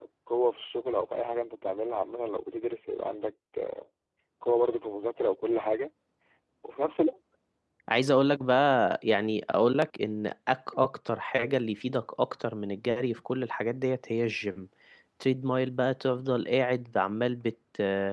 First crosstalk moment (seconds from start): none

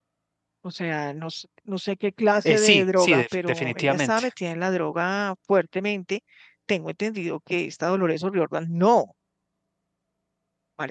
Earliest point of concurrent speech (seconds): 2.4 s

